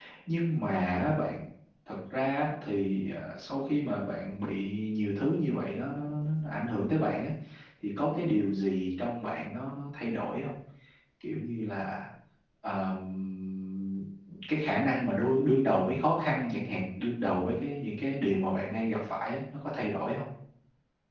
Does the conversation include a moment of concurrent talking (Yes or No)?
No